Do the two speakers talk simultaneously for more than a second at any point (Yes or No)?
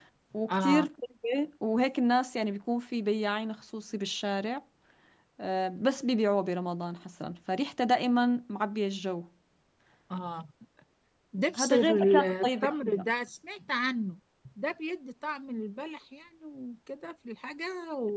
Yes